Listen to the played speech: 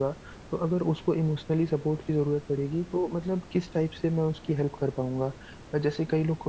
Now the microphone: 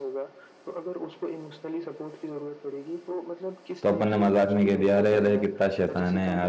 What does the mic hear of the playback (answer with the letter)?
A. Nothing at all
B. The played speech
B